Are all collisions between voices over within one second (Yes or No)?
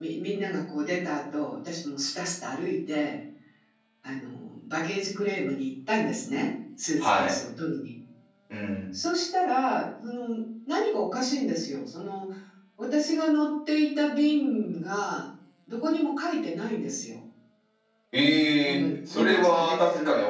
No